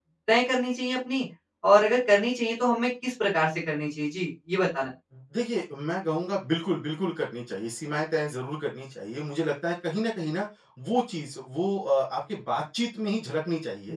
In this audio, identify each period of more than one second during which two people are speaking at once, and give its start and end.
none

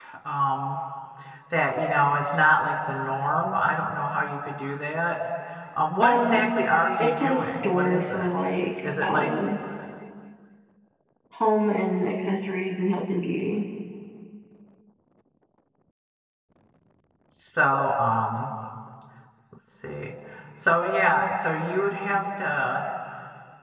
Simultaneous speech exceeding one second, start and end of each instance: 7.0-8.3

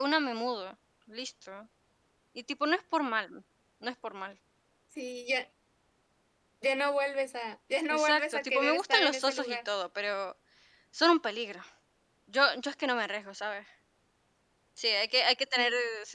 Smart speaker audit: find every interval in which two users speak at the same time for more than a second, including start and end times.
8.0-9.6

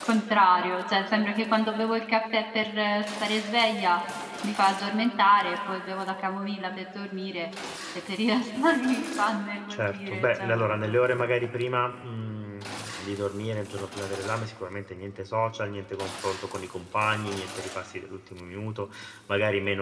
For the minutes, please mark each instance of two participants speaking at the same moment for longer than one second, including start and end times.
9.7-11.5

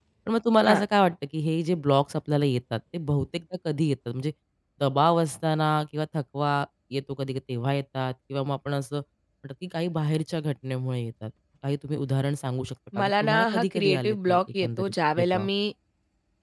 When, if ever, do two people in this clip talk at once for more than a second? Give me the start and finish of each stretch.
13.0-15.5

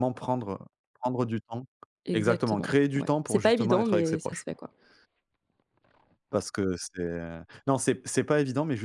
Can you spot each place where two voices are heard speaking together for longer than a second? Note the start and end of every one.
2.1-4.4

